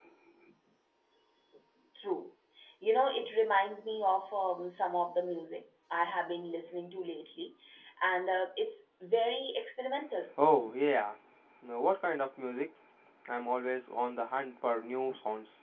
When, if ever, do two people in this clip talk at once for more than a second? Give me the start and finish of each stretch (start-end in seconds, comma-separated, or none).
none